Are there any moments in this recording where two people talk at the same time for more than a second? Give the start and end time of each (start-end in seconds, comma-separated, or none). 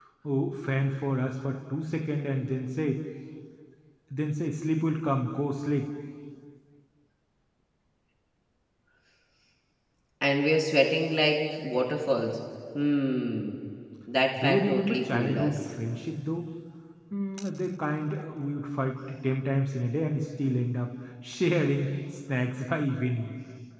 14.4-15.6